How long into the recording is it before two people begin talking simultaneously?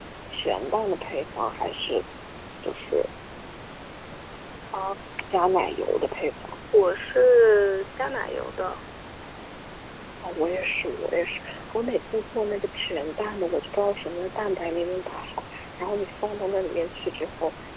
none

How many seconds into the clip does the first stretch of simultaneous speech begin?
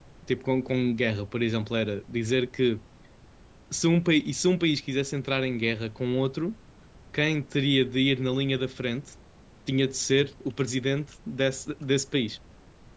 none

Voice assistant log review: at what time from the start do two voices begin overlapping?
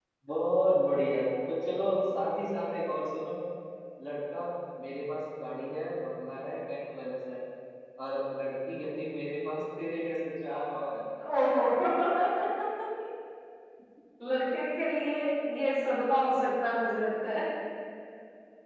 none

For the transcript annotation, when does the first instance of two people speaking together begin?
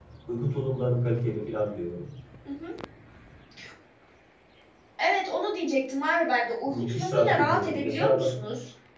7 s

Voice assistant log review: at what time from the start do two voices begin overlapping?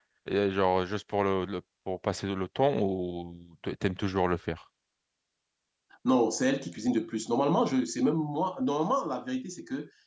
none

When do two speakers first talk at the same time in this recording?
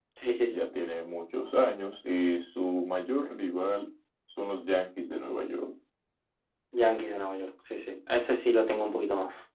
none

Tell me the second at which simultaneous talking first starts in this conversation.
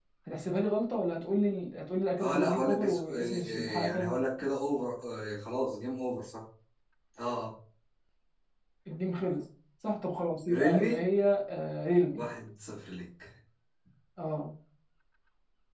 2 s

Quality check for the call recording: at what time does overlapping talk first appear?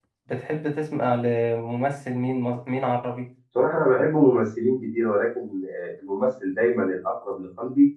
none

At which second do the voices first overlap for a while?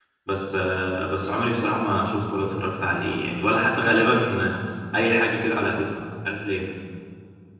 none

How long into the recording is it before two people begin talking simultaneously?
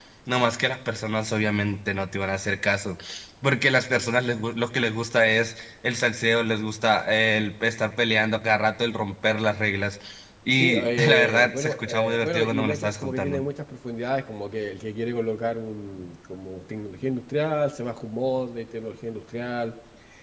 11 s

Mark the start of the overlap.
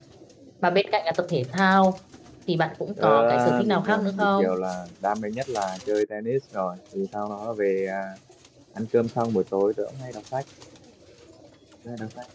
3 s

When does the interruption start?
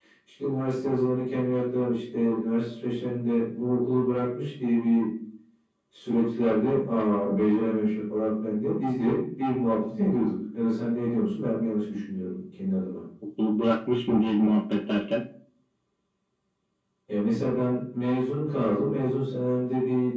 none

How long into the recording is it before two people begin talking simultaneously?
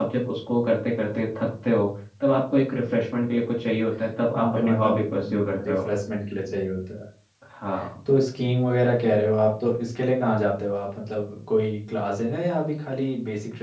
4 s

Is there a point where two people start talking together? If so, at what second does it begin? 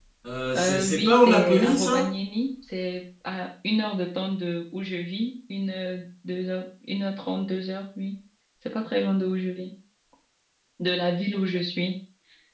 1 s

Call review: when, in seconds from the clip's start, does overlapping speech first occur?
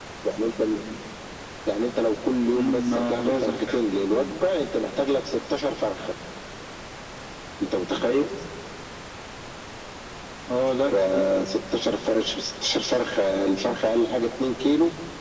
3 s

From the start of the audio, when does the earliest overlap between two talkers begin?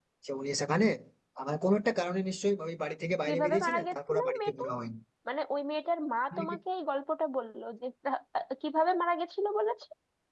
3 s

